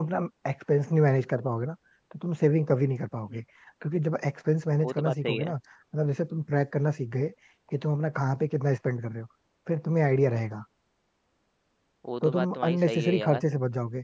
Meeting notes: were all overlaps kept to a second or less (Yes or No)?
No